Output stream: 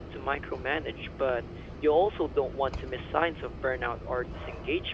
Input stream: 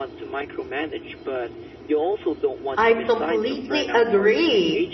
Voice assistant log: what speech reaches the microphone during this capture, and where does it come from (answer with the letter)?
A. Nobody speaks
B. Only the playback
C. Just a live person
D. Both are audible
D